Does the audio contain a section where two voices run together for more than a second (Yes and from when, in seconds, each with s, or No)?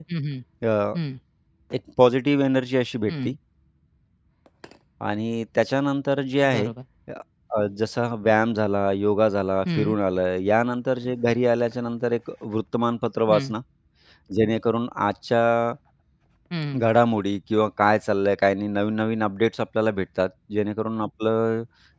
No